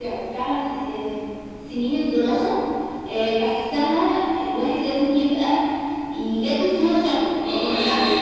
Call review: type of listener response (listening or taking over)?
taking over